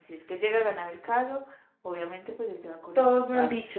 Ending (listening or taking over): taking over